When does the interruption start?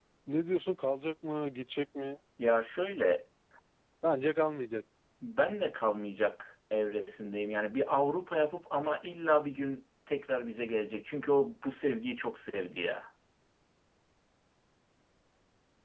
none

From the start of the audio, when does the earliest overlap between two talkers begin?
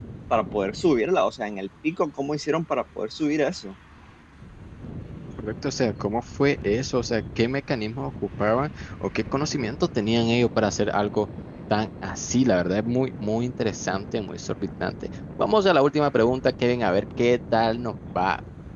none

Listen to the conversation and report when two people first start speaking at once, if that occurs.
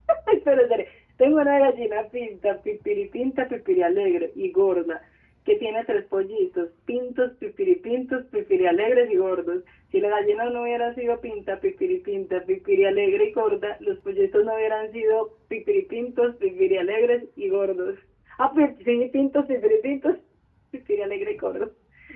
none

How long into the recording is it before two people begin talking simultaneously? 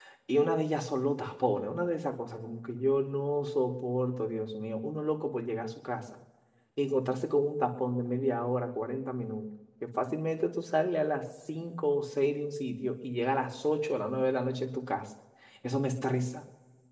none

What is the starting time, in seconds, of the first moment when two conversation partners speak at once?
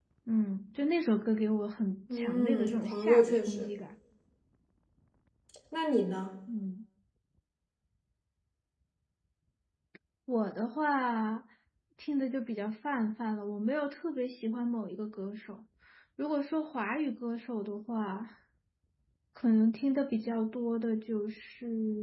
2.1 s

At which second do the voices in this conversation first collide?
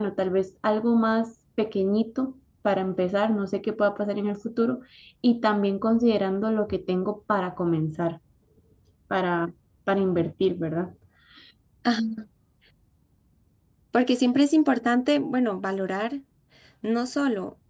none

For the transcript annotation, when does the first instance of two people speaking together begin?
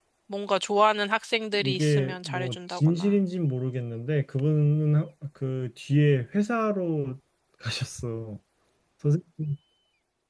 1.5 s

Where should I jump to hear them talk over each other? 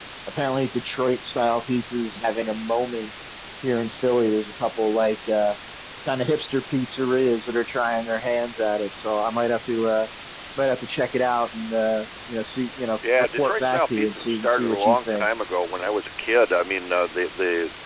13.0 s

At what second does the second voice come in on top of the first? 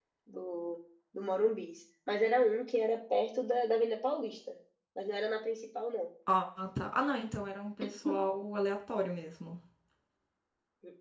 none

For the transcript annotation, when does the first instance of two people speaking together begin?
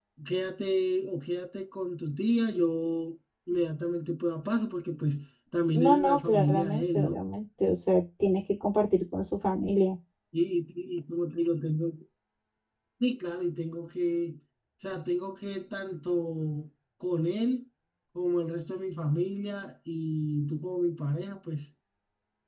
5.7 s

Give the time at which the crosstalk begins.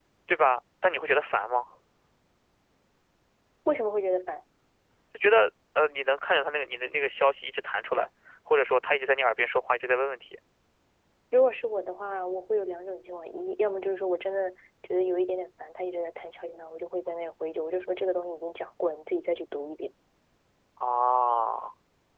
none

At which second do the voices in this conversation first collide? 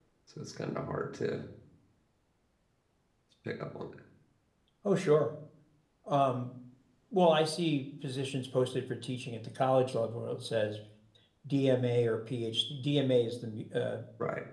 none

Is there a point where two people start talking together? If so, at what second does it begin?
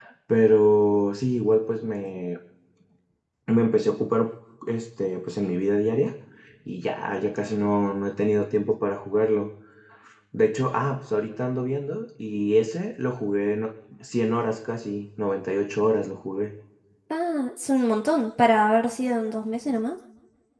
none

